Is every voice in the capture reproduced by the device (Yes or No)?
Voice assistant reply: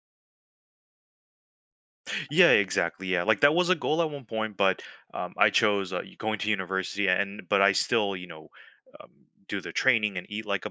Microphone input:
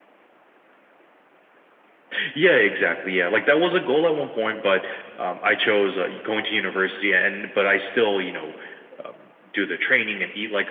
Yes